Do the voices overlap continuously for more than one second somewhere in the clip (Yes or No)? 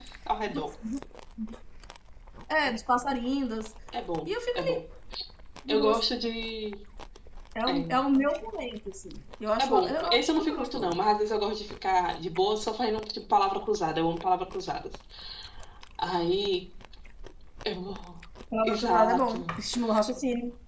Yes